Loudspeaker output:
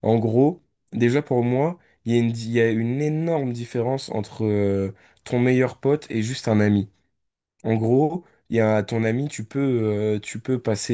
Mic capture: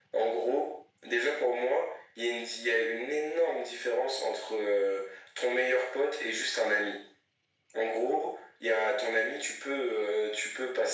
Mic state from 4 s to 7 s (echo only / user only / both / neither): echo only